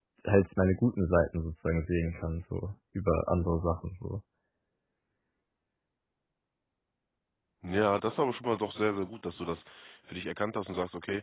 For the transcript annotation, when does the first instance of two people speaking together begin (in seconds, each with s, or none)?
none